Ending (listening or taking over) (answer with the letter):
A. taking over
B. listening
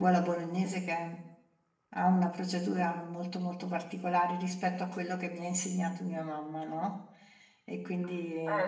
A